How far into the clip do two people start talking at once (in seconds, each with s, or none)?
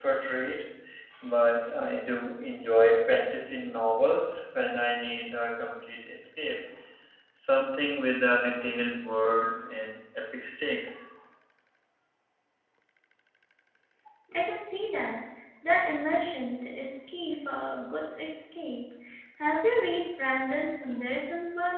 none